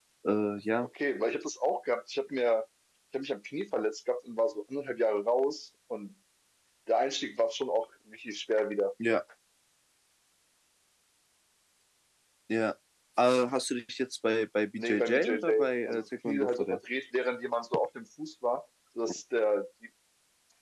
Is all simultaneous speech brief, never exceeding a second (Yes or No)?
No